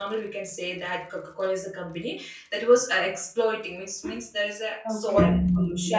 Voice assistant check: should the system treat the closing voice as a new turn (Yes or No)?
Yes